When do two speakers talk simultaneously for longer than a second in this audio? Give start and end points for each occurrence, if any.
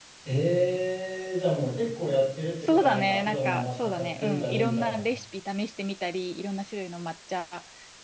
2.7-5.0

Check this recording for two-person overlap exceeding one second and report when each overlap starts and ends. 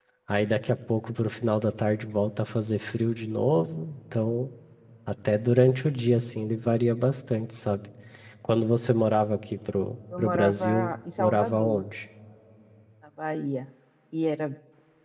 10.2-11.8

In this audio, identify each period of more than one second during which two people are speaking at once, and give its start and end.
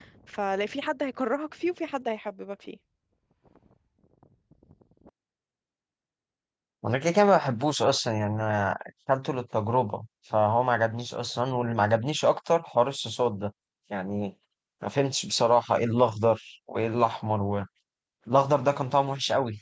none

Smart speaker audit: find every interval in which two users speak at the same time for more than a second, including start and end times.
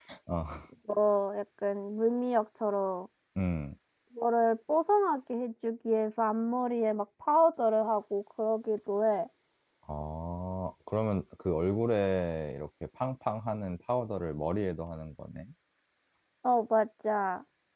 none

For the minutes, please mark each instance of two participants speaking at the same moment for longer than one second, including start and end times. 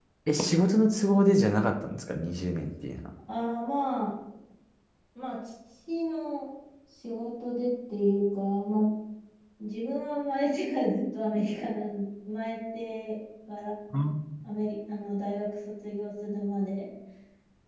none

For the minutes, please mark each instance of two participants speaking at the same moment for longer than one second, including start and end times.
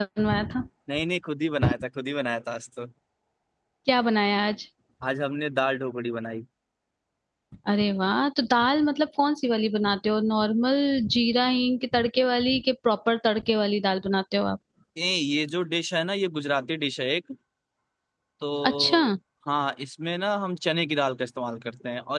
none

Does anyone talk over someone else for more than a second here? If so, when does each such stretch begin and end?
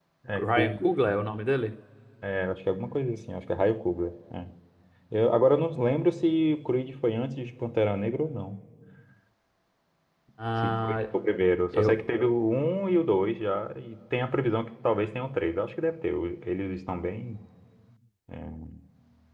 none

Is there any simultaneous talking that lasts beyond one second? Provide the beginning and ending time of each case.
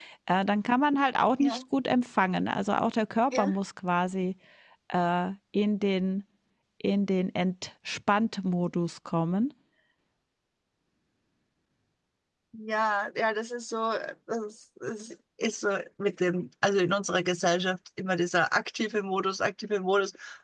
none

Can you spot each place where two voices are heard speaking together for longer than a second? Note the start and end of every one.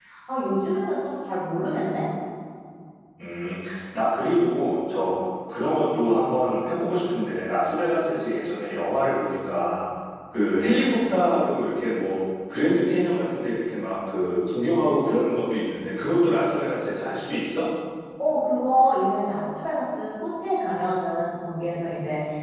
none

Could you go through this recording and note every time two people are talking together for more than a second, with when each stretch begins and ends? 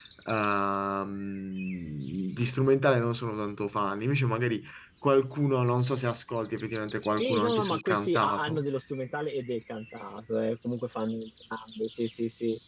7.2-8.6

